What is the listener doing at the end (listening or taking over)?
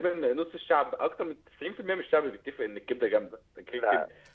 listening